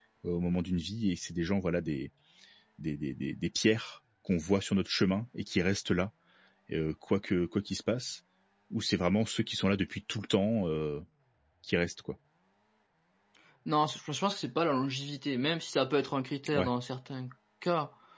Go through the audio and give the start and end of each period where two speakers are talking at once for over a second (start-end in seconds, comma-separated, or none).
none